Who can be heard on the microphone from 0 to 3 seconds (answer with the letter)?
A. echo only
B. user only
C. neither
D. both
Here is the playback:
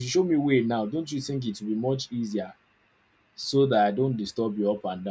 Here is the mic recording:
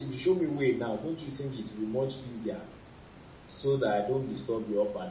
A